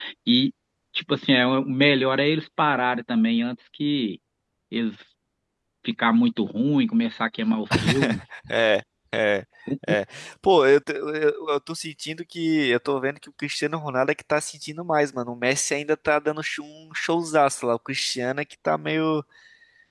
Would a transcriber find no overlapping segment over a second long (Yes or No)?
Yes